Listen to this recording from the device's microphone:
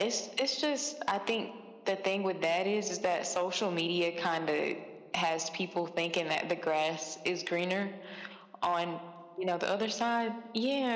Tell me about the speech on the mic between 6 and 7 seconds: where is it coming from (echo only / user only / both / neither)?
echo only